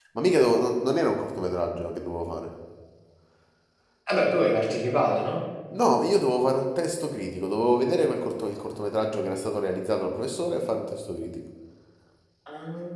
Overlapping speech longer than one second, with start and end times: none

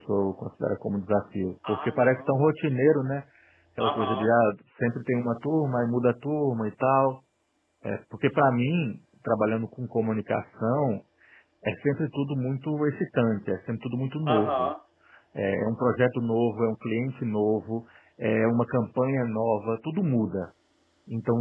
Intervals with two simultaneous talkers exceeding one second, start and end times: 1.7-3.1

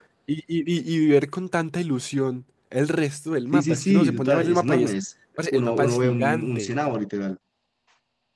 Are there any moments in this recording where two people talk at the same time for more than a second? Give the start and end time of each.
3.5-4.9, 5.5-6.7

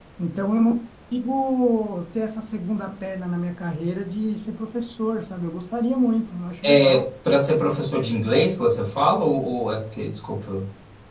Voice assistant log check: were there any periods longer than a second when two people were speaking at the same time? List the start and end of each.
none

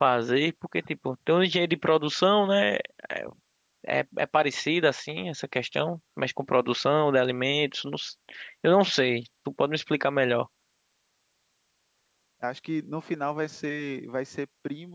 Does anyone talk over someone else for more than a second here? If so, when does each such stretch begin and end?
none

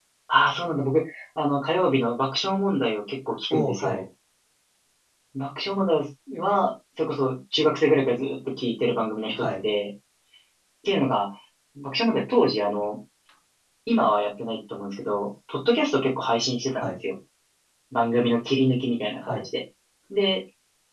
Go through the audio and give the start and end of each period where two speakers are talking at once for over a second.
none

